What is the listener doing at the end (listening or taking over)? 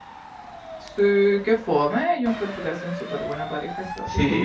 taking over